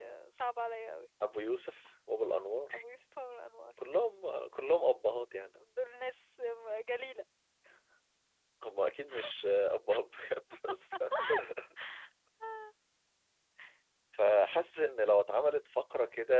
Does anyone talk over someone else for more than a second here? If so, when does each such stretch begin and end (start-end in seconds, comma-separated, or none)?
none